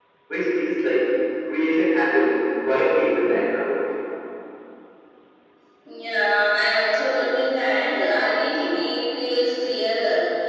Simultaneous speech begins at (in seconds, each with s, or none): none